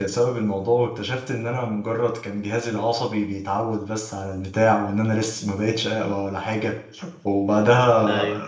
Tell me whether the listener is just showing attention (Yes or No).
No